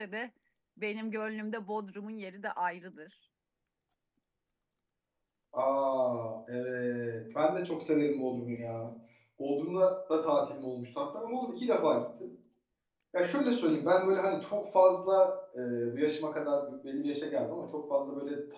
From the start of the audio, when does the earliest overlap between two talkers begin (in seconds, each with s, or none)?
none